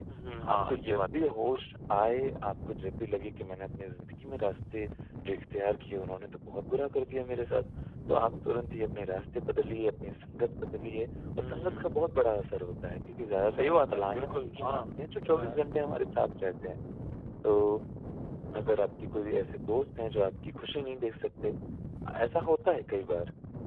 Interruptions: present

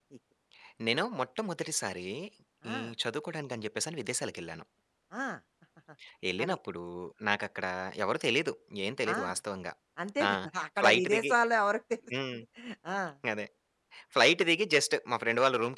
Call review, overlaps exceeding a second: none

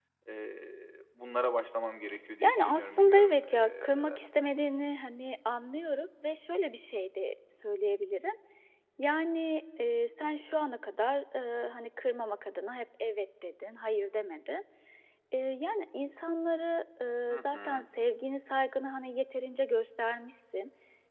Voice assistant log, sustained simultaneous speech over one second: present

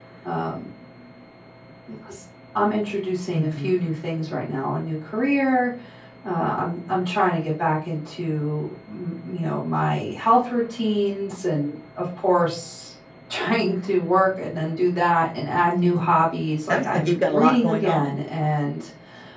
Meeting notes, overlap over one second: present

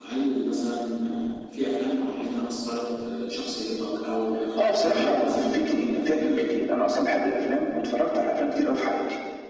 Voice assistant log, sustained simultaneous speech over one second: present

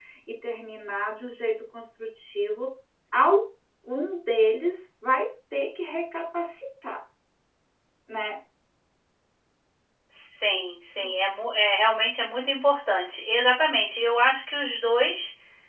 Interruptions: none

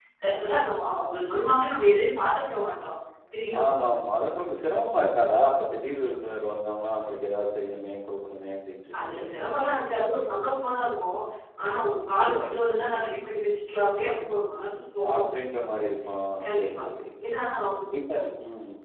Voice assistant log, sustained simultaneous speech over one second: none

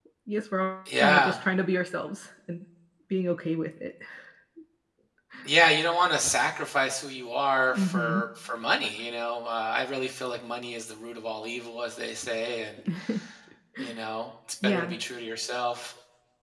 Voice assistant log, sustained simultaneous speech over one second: none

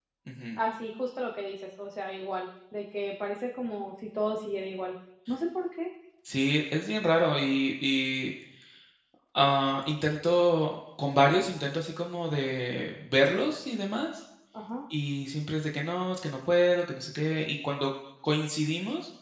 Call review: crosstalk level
none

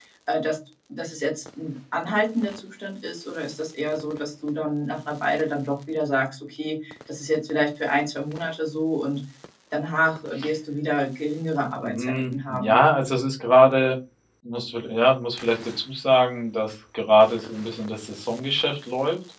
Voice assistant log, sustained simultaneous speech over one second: present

